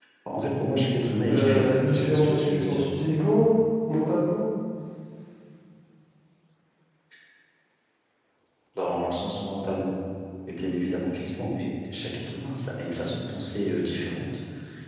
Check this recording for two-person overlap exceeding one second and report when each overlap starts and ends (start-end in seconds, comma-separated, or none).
1.3-2.8